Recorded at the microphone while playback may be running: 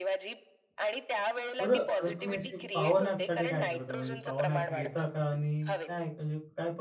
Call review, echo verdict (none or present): present